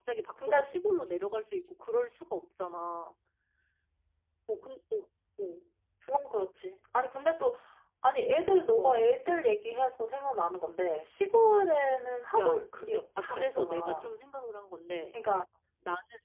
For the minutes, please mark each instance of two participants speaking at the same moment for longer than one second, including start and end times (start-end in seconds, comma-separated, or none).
12.4-14.1